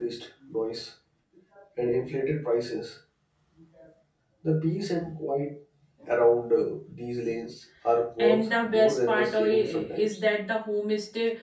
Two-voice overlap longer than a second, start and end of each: 8.2-10.1

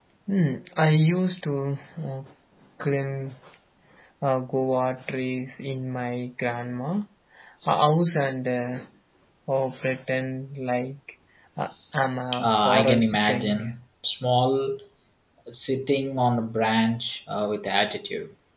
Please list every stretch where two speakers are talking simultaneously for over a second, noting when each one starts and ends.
12.4-13.7

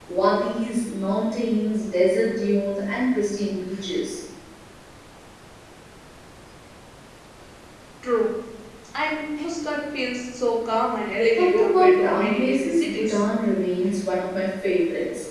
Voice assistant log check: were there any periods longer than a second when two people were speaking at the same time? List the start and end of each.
11.3-13.1

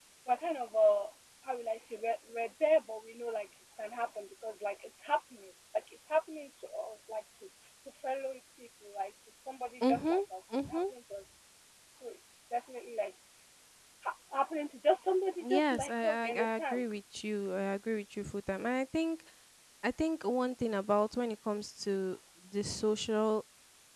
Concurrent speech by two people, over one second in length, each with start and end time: 15.5-16.8

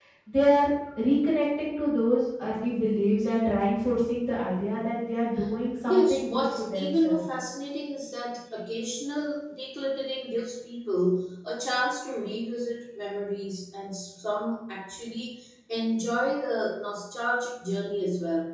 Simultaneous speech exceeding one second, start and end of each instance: 5.9-7.2

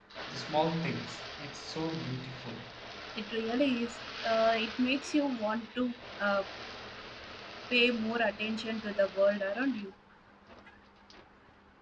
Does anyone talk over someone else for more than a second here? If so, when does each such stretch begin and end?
none

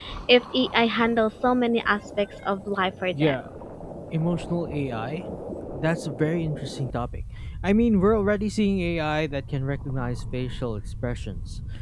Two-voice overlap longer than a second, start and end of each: none

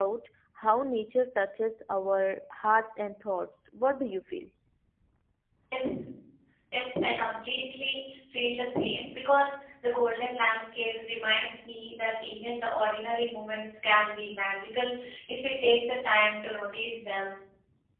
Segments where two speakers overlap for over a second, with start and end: none

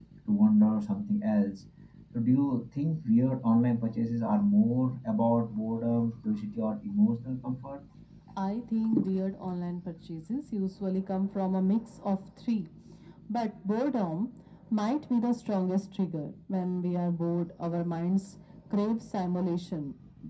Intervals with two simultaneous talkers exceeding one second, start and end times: none

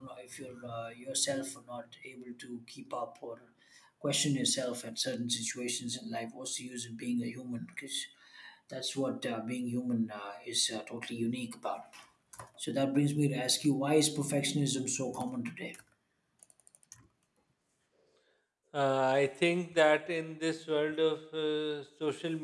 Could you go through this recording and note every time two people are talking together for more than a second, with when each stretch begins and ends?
none

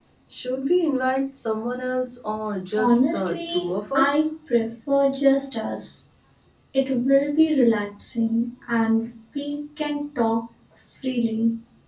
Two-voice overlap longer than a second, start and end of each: 2.8-4.2

